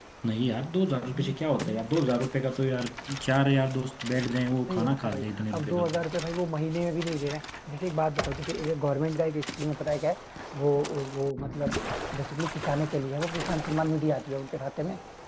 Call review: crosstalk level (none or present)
present